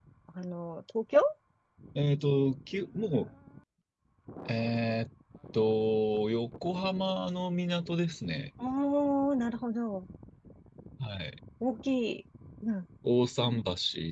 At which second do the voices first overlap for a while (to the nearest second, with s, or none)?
none